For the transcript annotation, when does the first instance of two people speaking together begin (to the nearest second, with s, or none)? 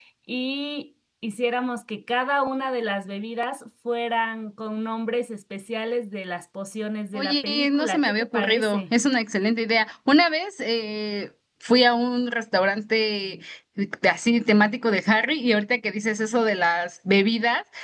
7 s